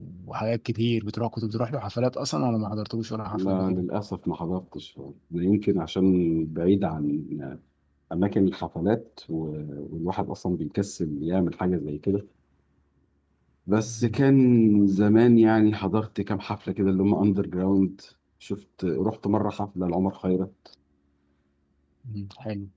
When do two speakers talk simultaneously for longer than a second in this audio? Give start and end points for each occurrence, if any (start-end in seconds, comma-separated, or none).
none